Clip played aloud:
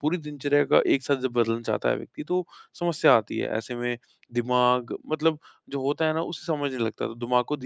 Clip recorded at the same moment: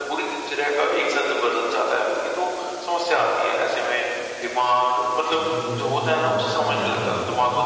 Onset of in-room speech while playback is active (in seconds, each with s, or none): 5.3 s